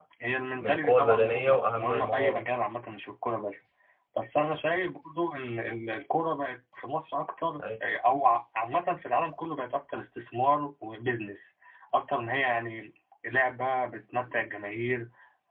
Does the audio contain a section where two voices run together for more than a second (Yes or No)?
Yes